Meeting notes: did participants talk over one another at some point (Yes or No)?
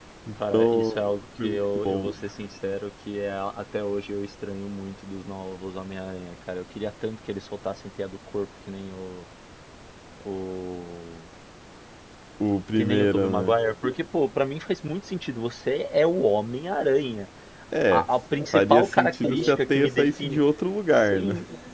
Yes